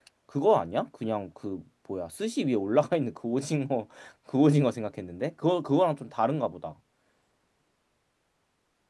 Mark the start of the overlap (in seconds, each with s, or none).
none